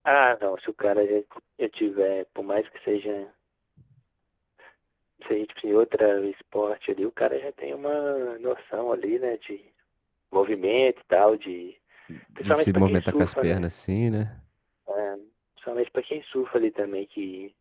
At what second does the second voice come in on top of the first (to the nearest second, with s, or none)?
12 s